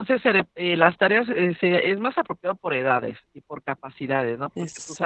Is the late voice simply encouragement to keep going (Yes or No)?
Yes